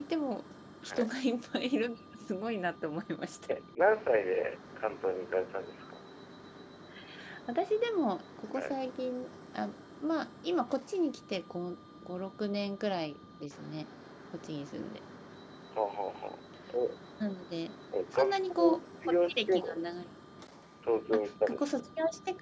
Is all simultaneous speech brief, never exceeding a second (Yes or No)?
No